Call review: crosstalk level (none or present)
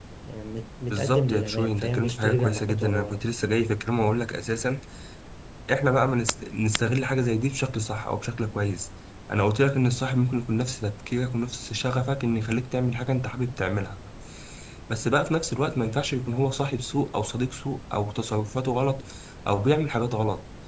present